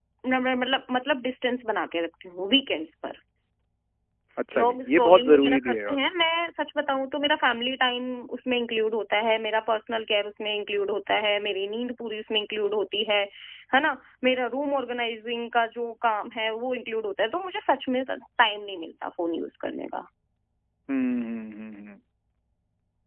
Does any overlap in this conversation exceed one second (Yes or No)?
Yes